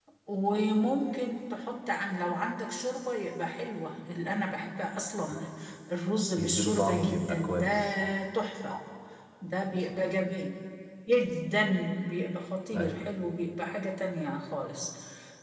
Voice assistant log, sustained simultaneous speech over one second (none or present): present